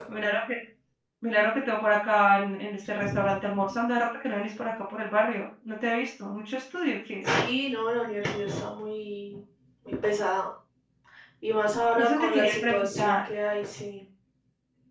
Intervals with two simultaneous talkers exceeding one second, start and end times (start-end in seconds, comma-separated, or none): 12.0-13.2